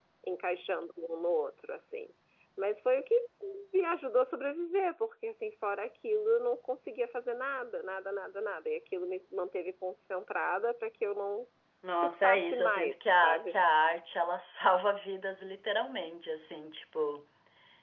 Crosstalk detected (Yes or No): Yes